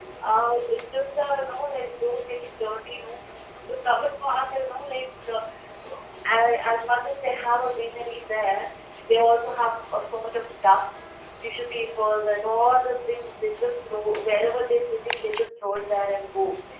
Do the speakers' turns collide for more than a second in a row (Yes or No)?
No